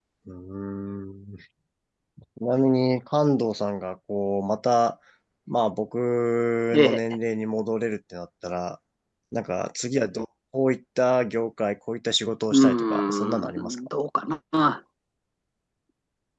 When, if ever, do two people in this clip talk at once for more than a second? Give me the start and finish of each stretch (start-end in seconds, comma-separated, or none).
12.5-13.8